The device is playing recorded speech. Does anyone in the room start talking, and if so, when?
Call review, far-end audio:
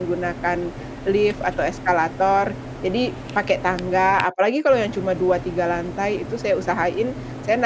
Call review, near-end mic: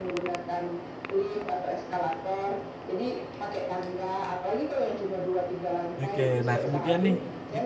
6.0 s

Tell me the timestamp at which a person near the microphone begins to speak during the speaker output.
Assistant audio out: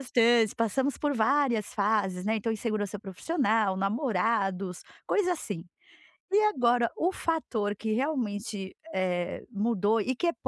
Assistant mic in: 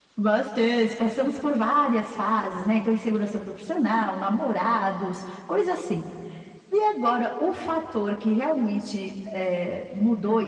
none

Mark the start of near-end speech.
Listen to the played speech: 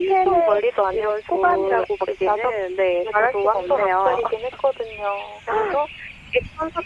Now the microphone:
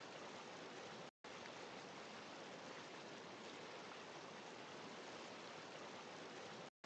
none

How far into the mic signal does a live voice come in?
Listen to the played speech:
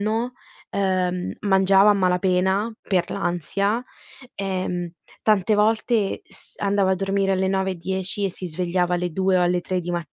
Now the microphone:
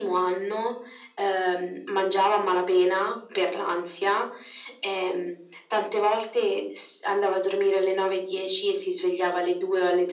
none

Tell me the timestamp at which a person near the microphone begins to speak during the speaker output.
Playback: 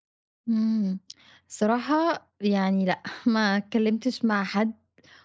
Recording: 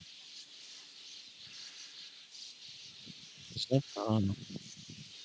3.5 s

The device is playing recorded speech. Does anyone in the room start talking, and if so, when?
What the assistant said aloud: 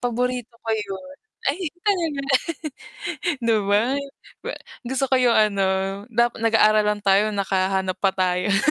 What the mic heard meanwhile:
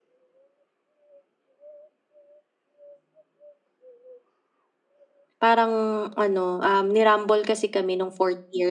5.4 s

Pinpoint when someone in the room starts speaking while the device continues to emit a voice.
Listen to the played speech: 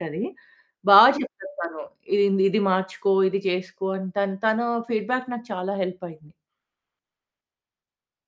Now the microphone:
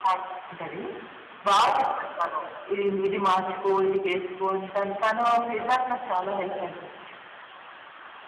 none

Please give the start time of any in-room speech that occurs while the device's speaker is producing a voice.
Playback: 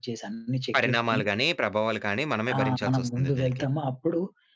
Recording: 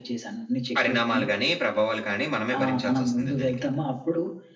none

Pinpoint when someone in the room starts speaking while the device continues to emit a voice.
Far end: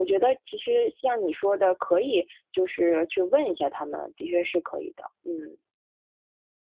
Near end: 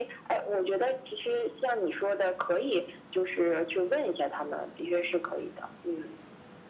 none

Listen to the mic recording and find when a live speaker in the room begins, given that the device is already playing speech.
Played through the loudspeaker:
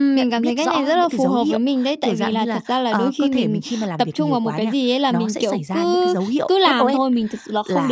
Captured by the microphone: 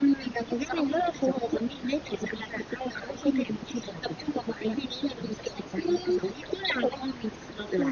none

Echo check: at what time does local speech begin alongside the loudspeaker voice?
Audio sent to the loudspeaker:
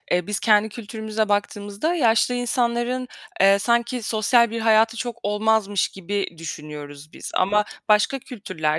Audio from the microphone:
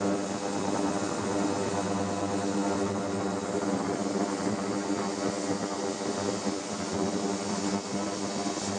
none

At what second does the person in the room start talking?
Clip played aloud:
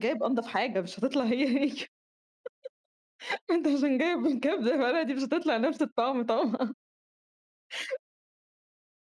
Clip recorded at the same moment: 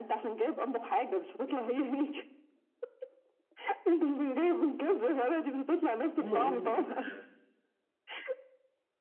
6.2 s

